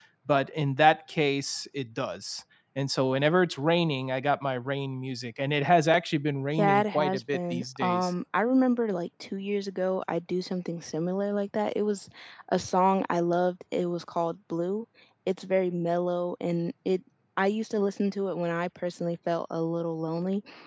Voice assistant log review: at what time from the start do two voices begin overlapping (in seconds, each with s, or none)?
6.6 s